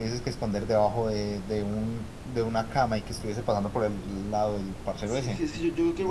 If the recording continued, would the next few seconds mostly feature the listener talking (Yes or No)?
Yes